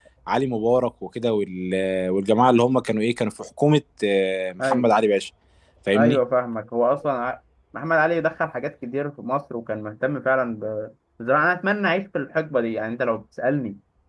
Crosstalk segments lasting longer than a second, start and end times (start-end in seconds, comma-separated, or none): none